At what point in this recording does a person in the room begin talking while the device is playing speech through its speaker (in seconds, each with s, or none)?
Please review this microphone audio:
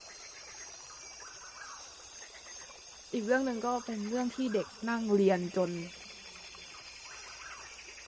3.1 s